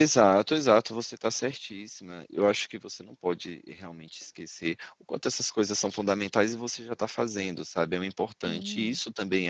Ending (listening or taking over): listening